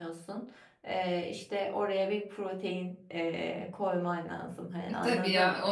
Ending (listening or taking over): taking over